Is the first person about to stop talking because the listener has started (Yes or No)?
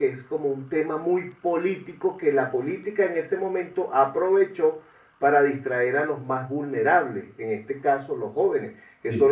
No